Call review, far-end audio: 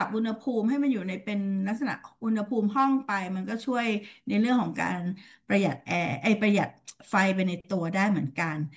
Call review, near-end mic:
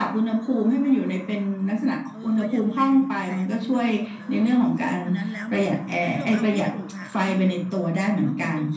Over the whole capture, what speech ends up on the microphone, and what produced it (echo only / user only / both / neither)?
both